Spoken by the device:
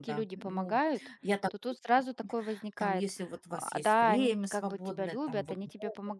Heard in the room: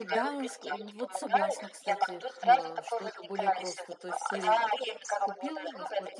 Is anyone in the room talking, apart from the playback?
Yes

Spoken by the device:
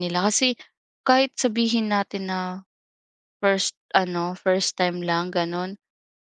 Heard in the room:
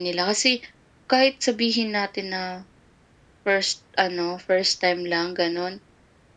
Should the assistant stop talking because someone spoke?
No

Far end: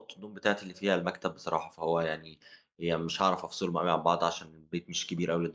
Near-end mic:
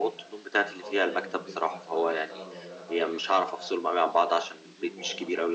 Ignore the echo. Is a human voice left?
Yes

